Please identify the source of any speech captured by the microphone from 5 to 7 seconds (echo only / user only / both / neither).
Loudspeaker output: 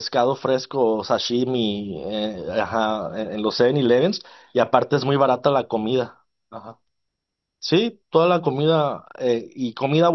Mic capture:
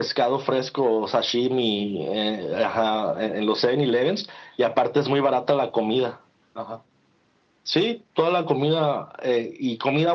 echo only